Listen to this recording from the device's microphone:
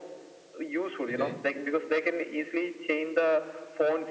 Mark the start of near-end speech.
1.1 s

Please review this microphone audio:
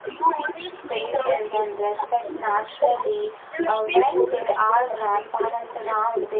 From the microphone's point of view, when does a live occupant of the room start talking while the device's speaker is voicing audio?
0.9 s

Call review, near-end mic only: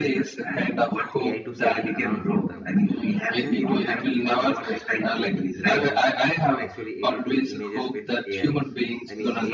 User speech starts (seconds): 1.2 s

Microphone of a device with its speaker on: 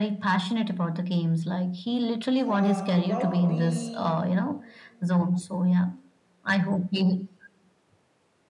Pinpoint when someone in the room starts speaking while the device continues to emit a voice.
2.5 s

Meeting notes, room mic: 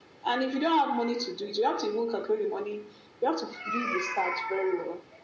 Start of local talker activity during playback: none

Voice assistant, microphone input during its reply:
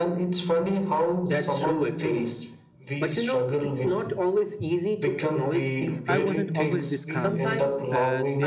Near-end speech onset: 6.0 s

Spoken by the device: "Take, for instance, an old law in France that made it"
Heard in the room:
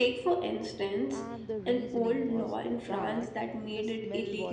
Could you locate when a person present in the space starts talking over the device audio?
1.1 s

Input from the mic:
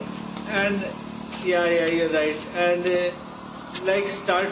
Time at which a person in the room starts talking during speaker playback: none

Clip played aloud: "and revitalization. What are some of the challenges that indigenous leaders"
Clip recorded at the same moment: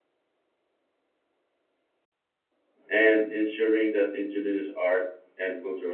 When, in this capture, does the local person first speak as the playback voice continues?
2.9 s

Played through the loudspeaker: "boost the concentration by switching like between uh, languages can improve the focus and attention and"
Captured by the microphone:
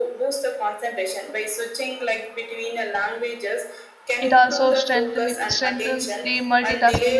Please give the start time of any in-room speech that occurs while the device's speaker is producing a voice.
4.2 s

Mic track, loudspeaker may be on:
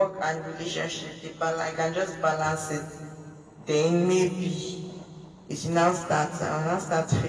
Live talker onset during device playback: none

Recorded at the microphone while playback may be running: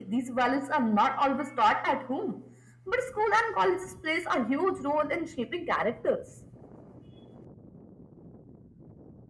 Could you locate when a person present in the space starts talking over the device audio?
none

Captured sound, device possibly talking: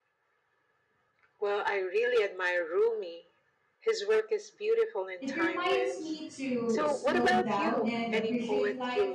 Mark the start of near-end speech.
5.2 s

